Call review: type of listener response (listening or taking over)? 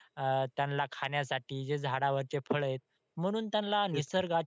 listening